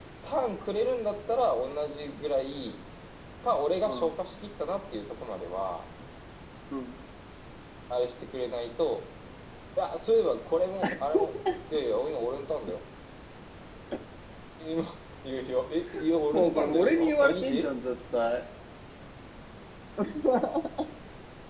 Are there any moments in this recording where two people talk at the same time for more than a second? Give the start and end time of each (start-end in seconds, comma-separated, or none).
16.3-17.7